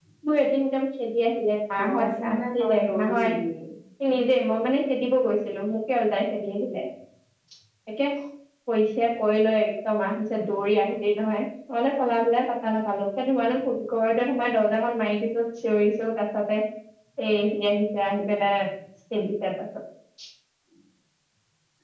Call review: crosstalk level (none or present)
present